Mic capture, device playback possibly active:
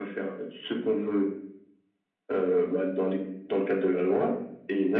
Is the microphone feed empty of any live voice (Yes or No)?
Yes